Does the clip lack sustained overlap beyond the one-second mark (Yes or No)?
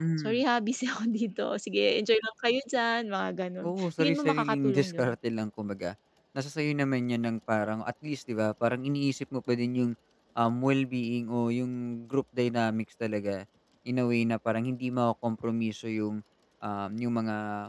No